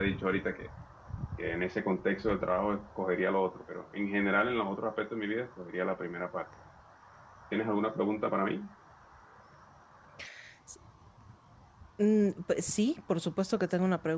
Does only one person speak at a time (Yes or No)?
Yes